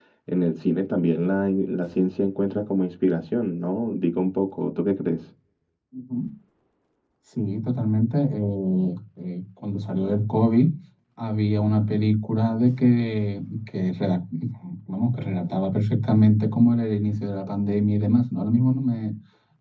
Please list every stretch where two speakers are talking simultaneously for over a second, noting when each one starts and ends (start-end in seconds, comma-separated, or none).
none